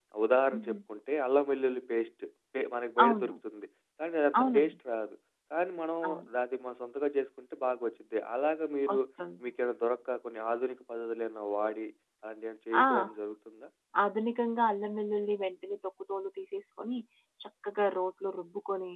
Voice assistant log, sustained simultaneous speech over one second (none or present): none